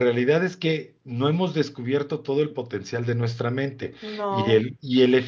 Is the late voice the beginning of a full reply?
No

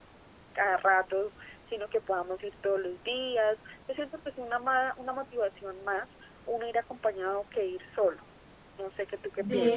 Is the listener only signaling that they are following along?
No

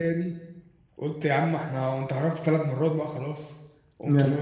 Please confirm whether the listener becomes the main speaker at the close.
Yes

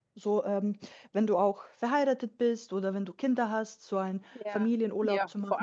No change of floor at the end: No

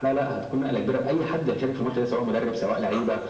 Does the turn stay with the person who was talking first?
Yes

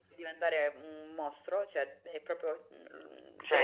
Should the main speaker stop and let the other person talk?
Yes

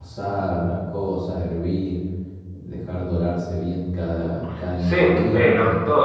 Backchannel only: No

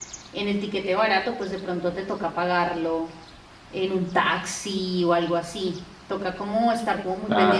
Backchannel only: Yes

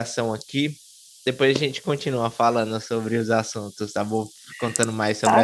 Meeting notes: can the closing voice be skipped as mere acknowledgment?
No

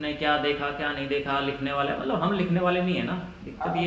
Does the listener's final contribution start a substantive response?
Yes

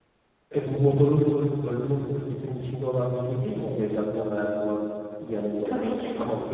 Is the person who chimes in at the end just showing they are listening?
Yes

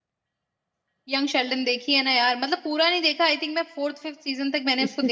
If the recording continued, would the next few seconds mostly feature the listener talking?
Yes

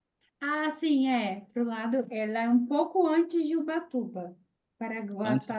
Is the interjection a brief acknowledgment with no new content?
Yes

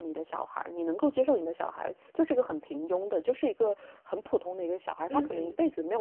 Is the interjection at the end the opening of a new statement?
No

